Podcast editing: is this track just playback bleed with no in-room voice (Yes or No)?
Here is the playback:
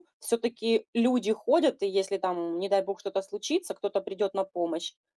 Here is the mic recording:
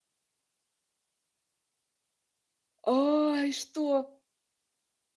No